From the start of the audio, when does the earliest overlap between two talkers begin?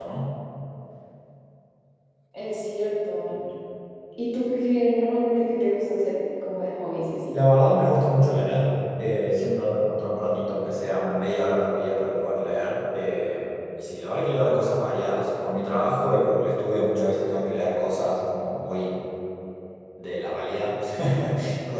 none

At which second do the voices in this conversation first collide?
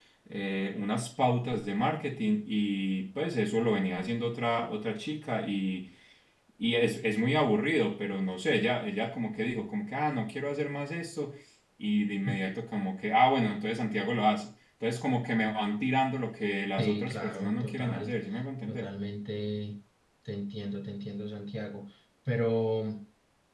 16.8 s

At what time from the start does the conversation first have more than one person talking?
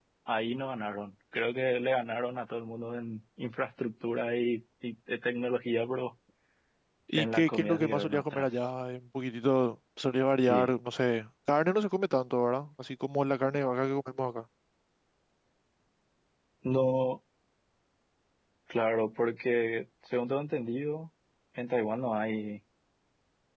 7.2 s

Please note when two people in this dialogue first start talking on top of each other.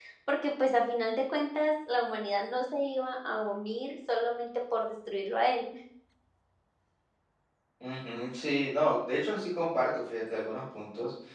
none

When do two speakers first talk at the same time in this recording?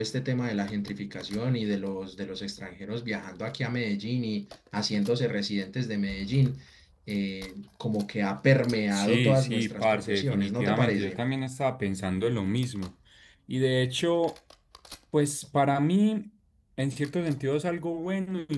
8.9 s

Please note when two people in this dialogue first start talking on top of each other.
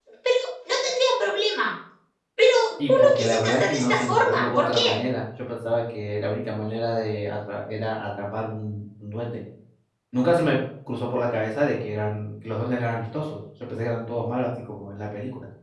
2.9 s

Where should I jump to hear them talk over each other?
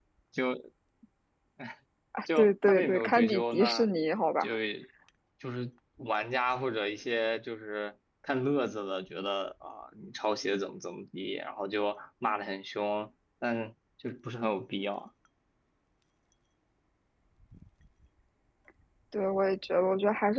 2.4 s

